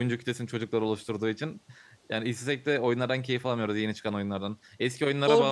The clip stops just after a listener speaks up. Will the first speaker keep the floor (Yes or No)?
Yes